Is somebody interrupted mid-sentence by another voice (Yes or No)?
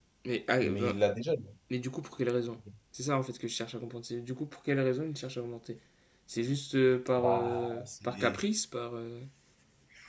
Yes